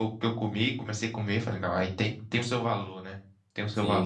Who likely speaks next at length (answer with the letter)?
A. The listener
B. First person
A